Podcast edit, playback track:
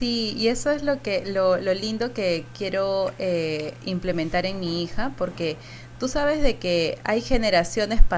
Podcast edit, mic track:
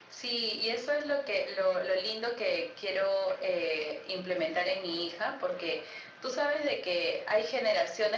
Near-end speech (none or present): none